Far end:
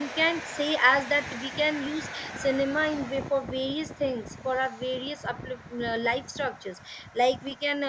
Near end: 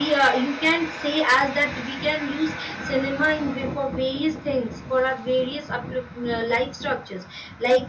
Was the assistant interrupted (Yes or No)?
No